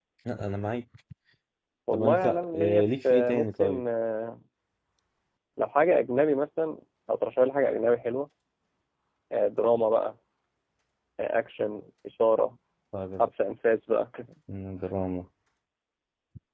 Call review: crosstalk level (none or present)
present